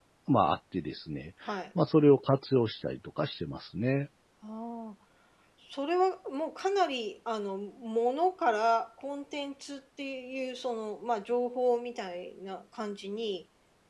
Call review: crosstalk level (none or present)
none